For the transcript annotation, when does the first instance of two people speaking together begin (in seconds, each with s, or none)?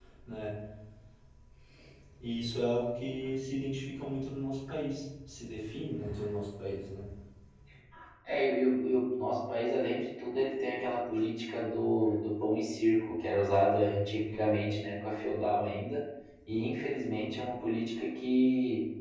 none